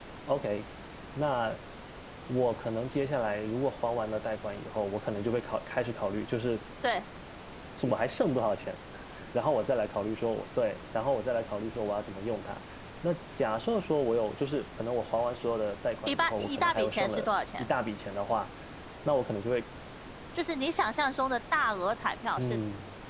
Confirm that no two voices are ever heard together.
No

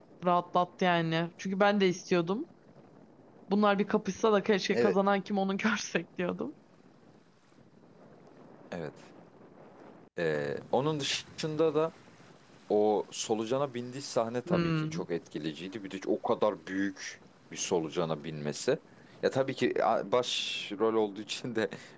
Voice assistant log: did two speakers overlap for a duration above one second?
No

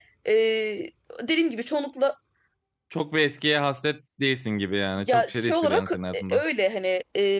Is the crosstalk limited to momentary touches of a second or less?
No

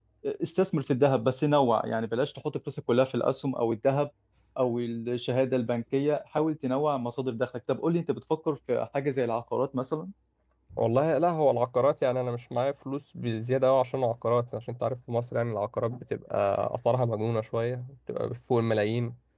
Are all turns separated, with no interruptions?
Yes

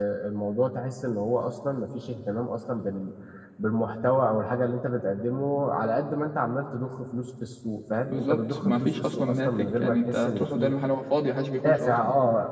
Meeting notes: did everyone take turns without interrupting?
No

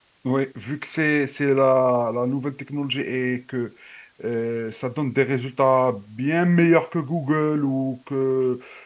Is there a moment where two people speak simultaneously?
No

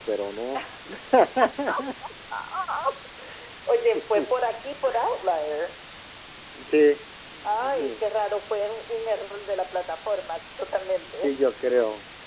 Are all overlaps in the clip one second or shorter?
Yes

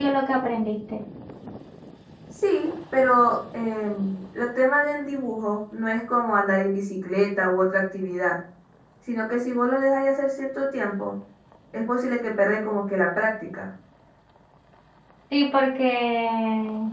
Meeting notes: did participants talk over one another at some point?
No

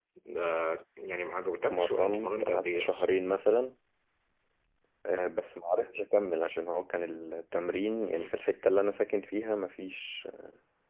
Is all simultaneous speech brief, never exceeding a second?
No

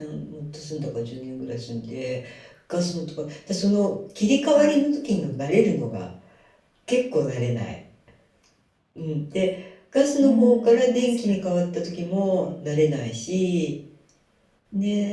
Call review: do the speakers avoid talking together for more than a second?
No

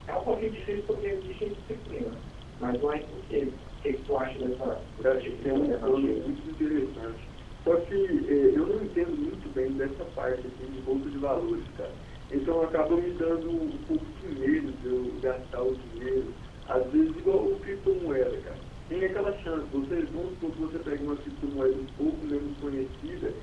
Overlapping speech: Yes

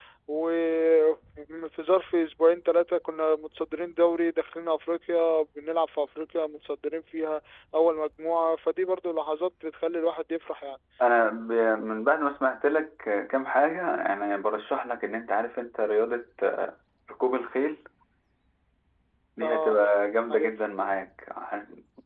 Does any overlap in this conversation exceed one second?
No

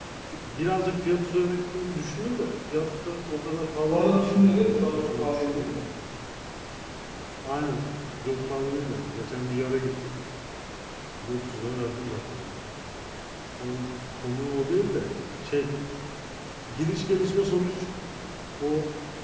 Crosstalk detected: Yes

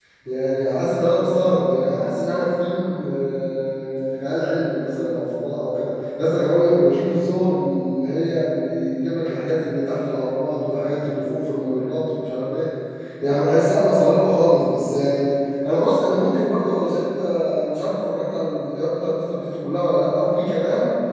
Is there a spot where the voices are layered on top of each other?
No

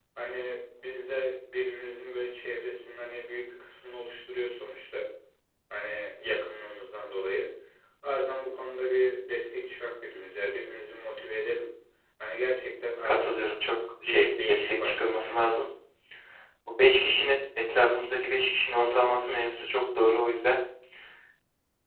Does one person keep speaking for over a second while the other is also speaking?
Yes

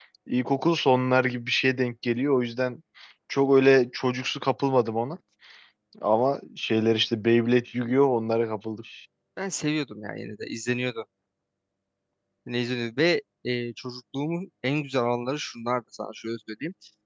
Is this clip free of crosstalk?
Yes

